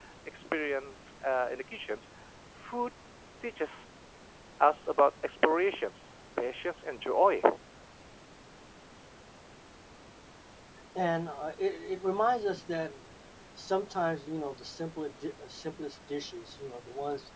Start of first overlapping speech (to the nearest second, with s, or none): none